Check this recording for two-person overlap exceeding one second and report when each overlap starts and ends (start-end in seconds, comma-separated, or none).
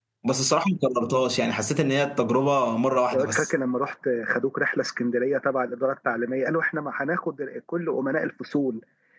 none